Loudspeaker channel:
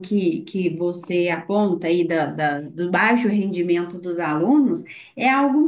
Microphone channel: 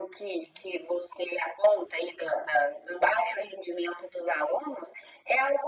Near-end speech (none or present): none